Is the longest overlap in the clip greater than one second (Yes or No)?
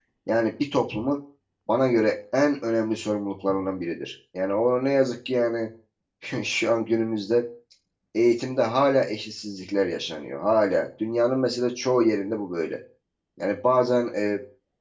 No